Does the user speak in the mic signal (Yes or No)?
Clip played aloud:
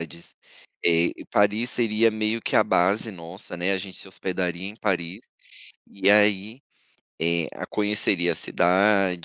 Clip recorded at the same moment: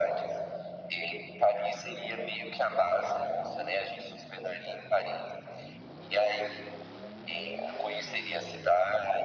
No